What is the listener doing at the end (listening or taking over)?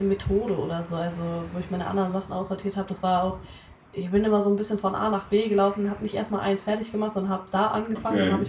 listening